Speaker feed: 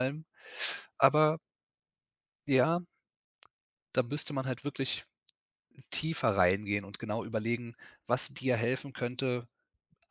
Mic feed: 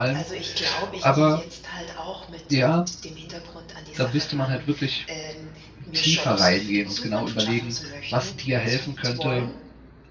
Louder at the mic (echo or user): echo